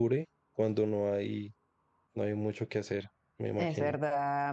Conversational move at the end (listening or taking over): taking over